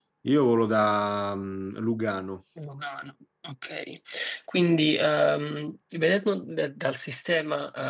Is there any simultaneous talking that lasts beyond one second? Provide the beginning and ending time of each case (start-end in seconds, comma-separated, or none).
none